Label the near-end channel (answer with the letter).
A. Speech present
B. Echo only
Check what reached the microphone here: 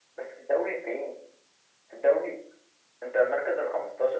B